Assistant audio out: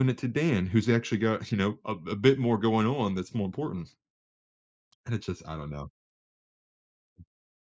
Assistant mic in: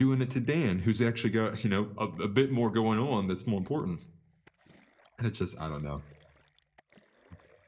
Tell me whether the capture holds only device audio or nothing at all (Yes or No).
Yes